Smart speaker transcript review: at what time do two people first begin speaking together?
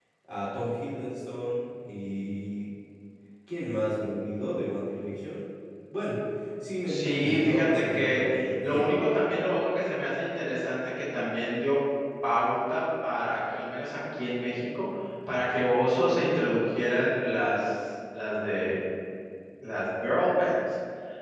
7 s

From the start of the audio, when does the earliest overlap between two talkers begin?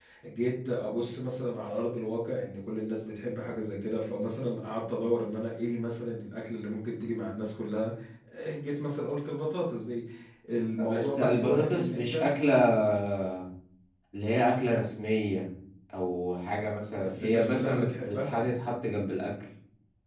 11 s

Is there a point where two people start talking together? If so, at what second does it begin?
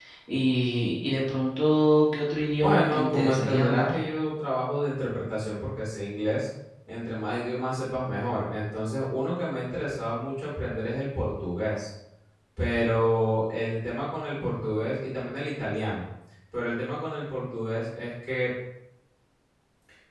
3 s

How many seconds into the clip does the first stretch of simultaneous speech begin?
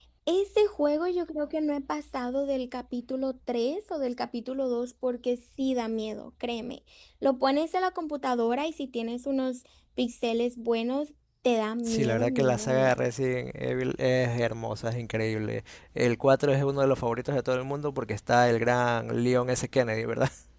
12 s

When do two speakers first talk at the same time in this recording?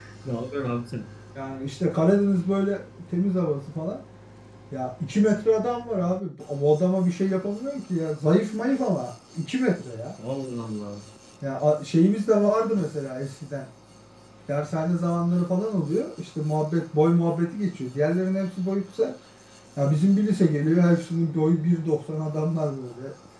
none

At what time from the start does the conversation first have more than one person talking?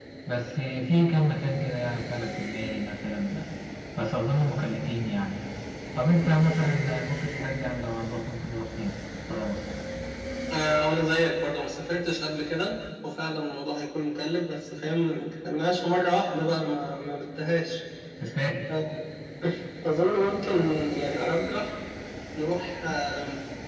none

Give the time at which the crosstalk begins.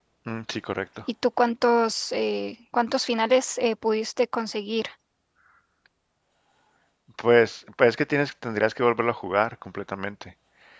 none

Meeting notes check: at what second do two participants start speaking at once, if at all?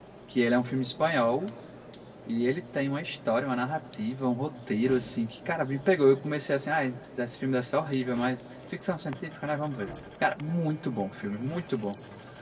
none

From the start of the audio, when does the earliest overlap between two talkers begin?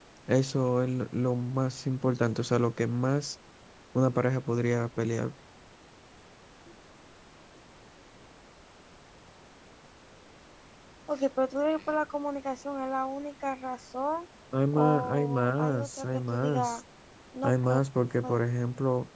15 s

